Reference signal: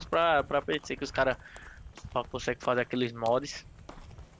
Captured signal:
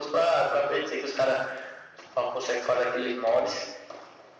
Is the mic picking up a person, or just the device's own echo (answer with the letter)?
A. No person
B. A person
A